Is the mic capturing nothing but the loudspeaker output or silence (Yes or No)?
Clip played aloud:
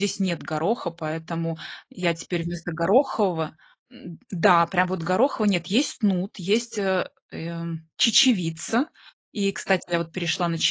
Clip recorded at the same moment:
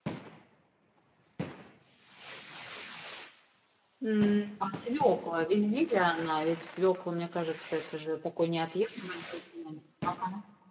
No